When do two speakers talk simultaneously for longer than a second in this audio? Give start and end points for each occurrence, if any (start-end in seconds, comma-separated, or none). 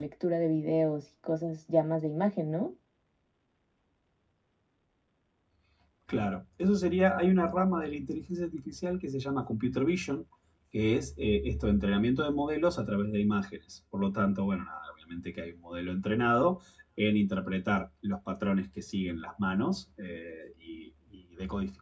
none